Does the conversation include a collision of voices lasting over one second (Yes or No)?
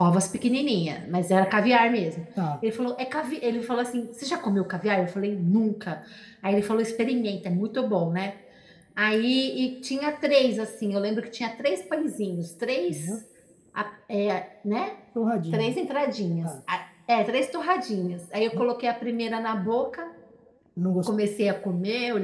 No